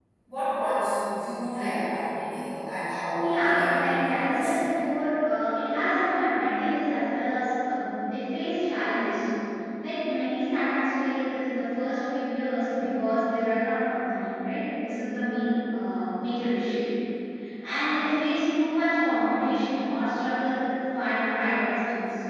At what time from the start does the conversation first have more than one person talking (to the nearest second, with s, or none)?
3 s